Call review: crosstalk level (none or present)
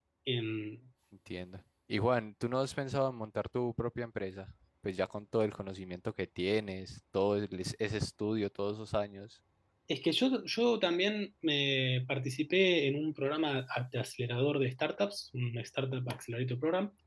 none